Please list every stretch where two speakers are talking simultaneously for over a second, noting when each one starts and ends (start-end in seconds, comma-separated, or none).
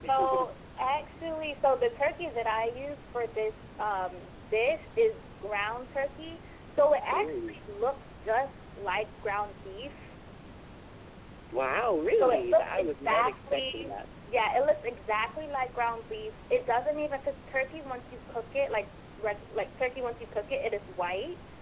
12.2-13.9